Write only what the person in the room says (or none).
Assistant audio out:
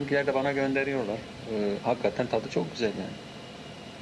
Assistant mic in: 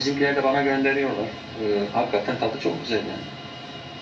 none